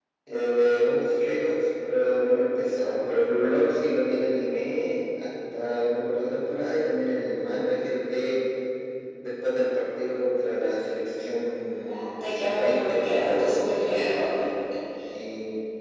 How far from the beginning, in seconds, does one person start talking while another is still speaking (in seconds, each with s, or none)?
11.9 s